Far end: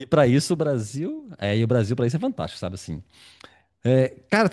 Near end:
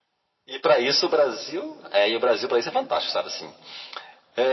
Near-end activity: none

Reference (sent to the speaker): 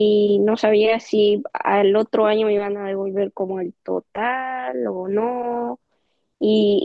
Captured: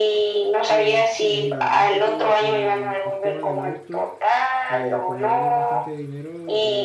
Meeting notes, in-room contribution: present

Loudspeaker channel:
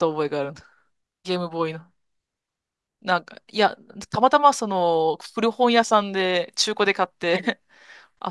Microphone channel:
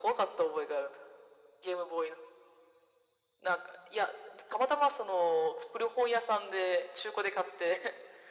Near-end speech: none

